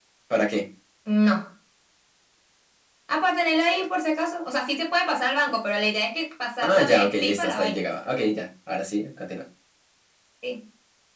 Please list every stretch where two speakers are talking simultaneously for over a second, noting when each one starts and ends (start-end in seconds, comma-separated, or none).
6.6-7.9